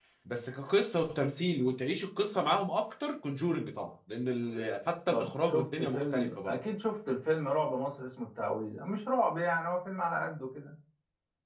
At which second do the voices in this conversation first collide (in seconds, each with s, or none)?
5.1 s